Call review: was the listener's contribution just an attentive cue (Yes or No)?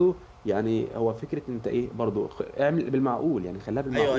No